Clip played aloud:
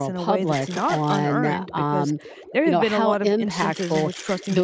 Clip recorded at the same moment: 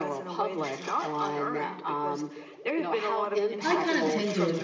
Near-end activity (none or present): present